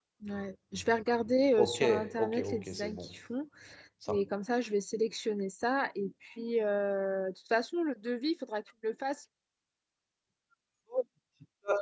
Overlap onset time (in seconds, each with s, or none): 1.6 s